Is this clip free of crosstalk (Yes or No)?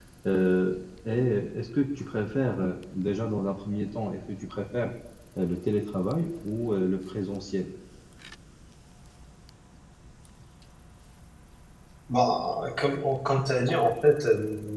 Yes